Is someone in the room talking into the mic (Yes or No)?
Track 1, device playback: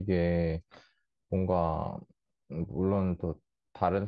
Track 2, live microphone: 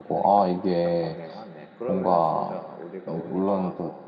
Yes